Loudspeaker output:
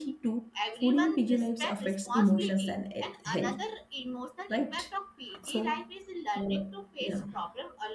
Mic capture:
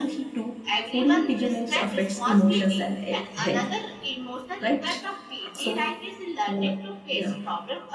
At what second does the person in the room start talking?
none

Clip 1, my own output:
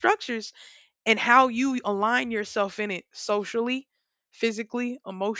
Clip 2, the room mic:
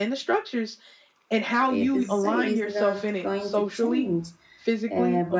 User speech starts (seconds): 1.7 s

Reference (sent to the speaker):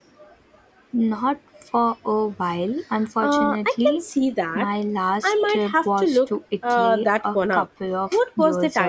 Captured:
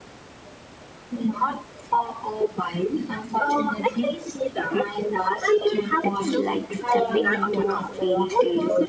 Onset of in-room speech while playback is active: 6.0 s

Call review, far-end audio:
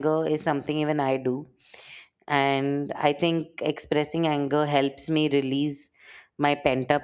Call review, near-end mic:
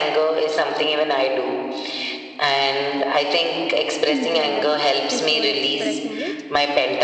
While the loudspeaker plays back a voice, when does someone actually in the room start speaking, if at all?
4.0 s

